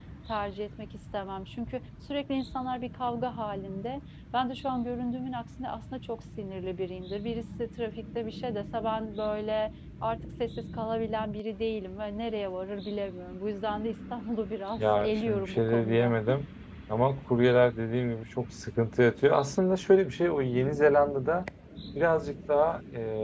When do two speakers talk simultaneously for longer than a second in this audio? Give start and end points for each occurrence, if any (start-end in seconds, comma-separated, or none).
14.8-16.2